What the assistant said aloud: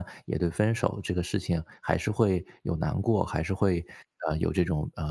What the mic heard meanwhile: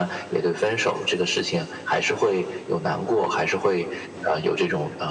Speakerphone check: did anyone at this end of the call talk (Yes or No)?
No